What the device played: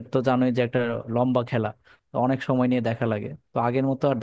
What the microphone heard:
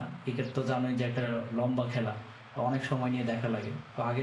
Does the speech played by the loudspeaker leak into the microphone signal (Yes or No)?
Yes